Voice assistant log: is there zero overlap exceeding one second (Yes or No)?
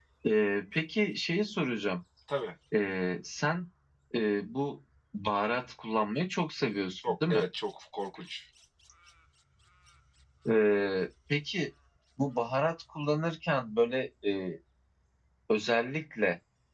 Yes